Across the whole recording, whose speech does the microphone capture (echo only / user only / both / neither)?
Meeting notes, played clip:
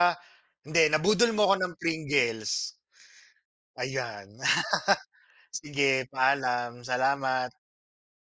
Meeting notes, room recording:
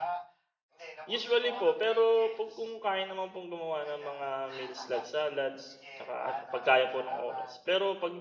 both